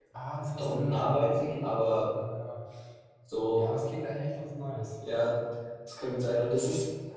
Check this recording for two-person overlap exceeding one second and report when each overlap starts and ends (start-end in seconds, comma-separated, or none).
0.6-2.0